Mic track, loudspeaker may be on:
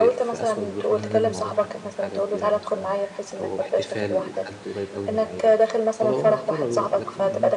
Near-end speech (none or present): present